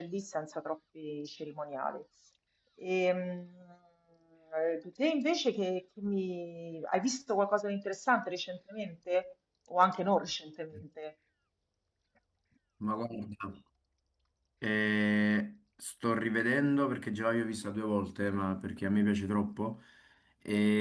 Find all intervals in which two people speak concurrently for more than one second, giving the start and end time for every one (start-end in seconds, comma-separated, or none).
none